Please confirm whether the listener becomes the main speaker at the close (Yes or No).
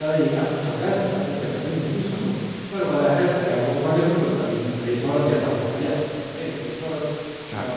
No